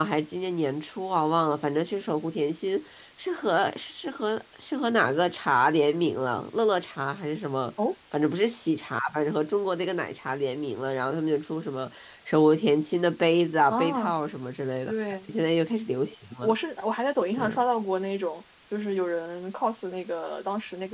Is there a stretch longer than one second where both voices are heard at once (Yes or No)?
No